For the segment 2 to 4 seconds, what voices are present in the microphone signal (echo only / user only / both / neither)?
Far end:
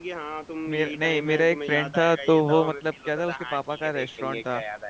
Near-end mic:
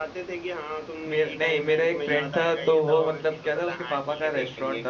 echo only